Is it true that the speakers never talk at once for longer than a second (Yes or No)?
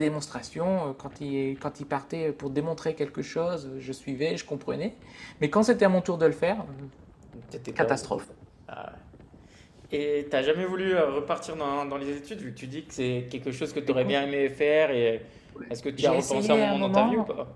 No